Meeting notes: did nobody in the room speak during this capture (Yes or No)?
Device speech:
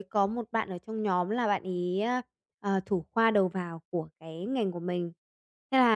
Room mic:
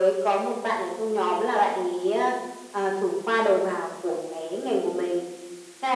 Yes